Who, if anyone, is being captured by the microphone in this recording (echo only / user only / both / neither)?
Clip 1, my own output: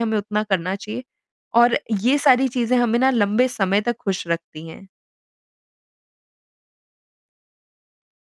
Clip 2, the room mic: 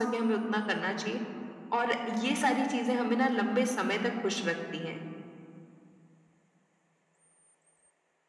echo only